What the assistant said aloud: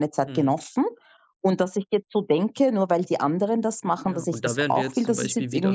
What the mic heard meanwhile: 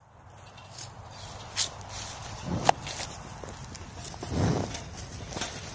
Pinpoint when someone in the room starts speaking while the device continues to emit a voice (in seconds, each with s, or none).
none